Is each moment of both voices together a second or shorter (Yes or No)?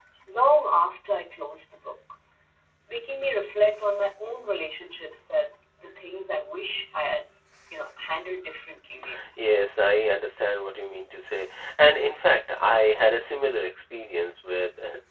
Yes